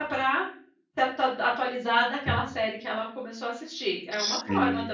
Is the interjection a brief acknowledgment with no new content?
No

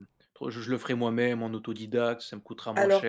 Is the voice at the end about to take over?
Yes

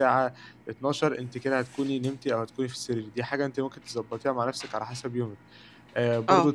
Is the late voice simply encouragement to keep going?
Yes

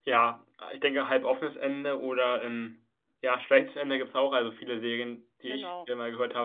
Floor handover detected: No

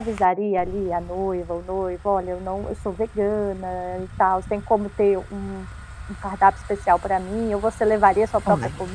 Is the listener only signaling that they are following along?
No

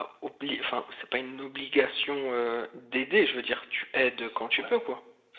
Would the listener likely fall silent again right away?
No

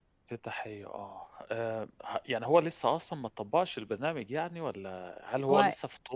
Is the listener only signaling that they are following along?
Yes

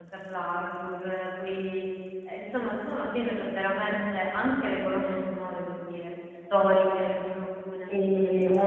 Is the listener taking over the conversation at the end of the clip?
Yes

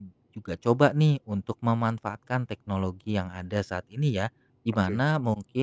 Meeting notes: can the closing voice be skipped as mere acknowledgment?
Yes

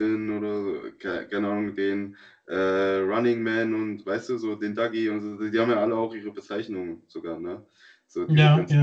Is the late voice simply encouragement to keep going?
Yes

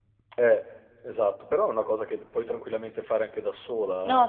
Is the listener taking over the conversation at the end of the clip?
Yes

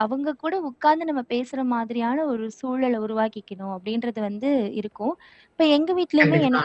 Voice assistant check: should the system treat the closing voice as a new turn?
No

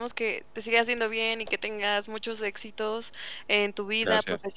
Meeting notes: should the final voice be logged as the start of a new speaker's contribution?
No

